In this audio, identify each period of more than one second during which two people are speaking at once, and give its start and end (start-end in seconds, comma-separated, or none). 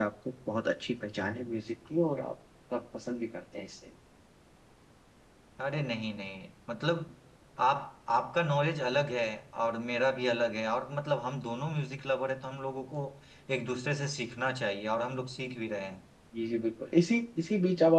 none